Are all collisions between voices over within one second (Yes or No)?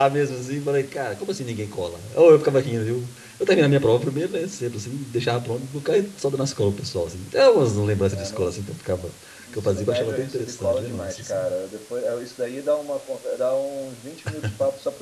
No